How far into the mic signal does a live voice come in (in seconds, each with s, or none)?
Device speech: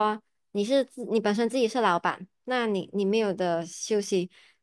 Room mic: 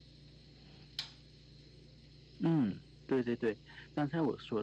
2.4 s